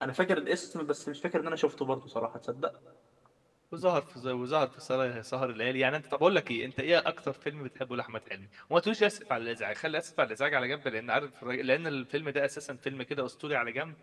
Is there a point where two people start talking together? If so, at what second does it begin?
none

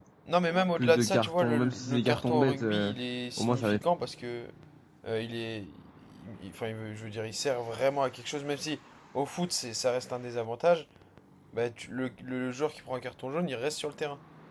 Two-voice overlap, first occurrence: 0.8 s

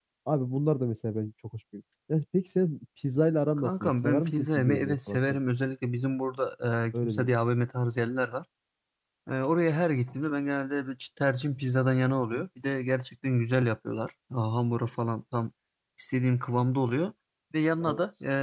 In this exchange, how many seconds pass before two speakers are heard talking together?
3.6 s

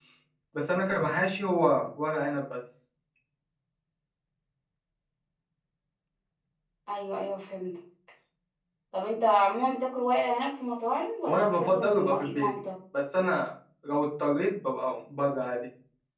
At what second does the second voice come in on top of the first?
11.3 s

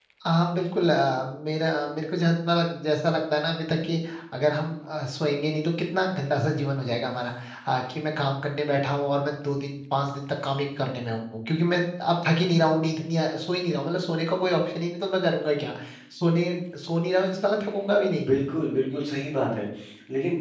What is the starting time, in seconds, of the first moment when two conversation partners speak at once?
none

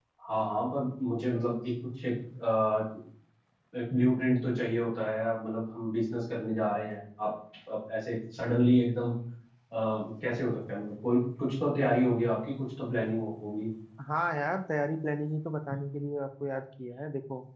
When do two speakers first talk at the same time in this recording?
none

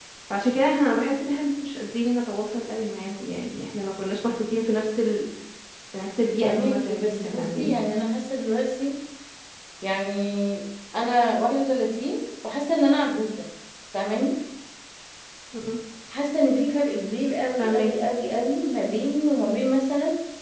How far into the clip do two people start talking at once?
6.4 s

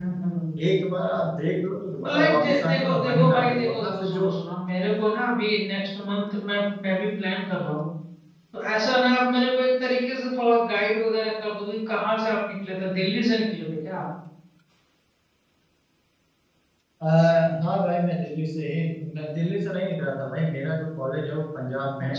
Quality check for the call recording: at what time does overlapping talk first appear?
2.0 s

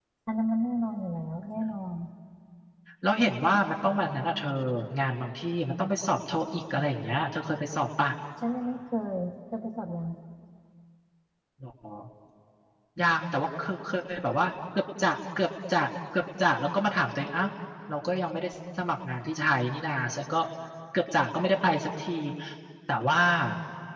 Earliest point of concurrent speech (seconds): none

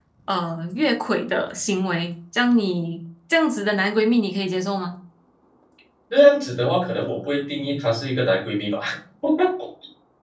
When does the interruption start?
none

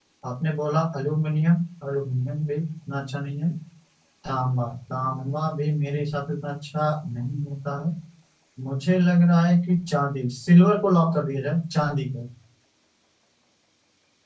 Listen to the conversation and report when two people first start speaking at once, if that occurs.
none

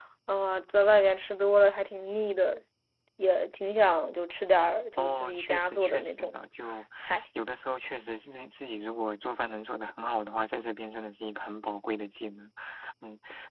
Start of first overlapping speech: 5.0 s

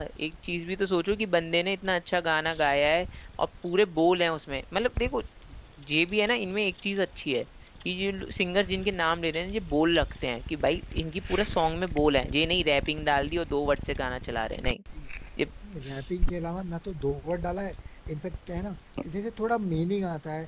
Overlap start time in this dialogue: none

